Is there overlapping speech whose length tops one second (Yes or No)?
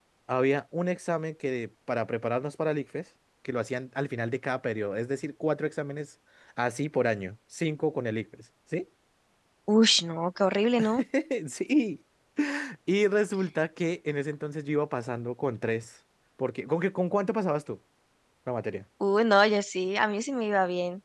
No